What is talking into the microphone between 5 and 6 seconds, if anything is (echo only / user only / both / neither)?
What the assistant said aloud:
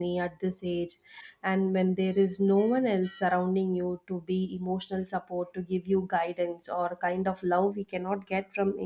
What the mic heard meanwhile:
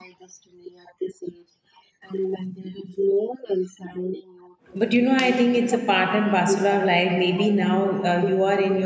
both